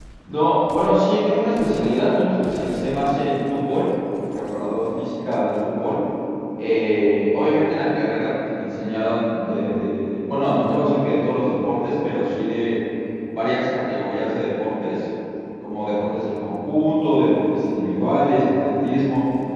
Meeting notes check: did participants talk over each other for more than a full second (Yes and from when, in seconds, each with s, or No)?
No